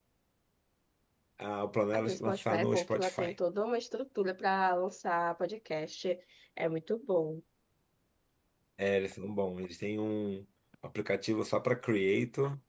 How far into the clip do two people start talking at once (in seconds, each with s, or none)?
1.9 s